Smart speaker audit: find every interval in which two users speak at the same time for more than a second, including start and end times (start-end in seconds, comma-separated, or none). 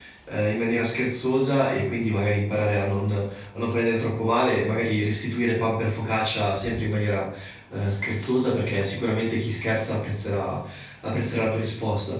none